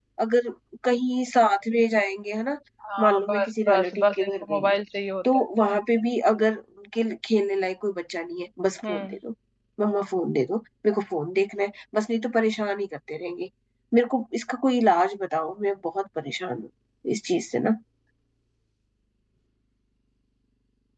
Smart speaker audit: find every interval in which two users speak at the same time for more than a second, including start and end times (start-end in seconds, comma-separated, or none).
3.0-4.8